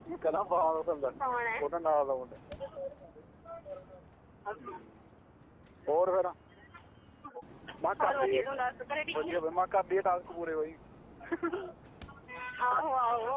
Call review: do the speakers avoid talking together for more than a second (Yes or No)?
Yes